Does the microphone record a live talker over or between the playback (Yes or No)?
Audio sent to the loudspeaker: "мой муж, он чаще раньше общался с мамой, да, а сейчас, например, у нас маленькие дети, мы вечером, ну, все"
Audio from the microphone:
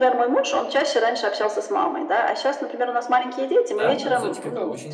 Yes